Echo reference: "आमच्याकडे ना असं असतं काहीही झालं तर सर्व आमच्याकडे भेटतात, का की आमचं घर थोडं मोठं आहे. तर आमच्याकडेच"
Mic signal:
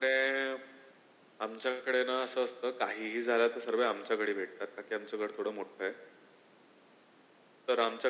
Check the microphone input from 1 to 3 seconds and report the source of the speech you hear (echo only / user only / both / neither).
echo only